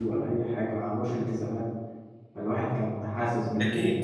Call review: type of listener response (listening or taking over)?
listening